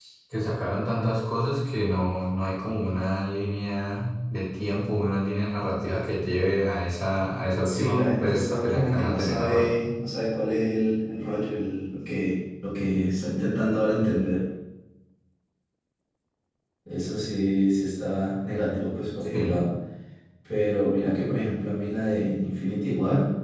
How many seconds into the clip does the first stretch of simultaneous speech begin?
7.7 s

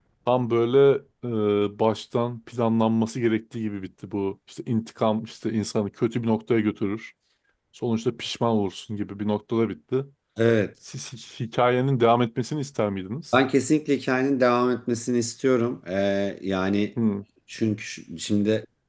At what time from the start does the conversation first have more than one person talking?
none

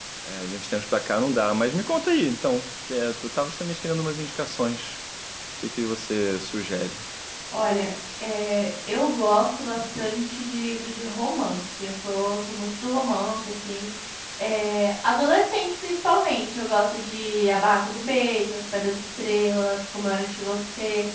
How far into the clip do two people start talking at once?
none

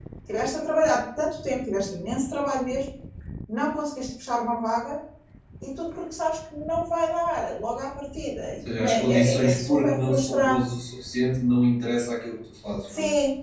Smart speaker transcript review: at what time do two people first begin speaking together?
8.8 s

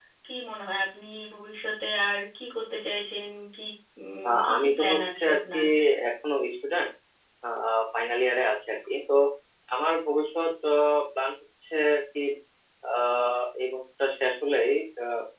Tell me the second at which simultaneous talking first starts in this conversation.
4.3 s

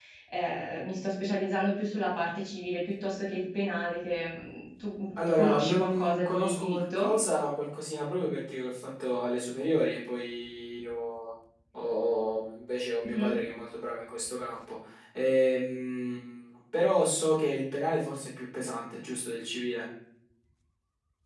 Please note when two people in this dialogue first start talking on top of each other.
5.4 s

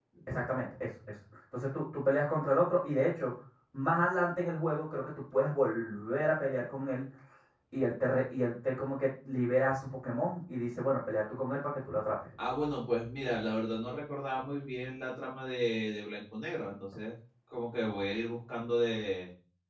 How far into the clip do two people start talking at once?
none

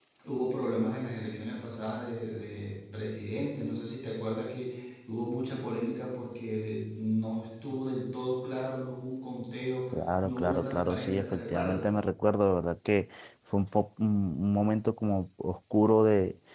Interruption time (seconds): 10.2 s

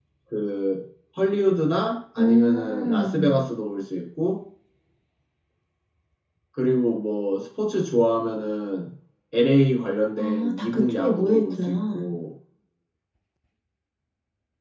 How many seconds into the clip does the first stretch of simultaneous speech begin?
2.2 s

